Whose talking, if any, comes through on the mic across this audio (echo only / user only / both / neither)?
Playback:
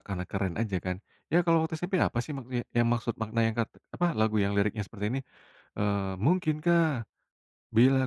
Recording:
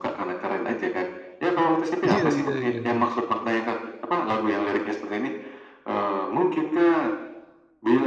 both